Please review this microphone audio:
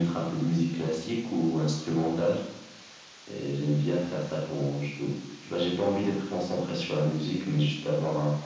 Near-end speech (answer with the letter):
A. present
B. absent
B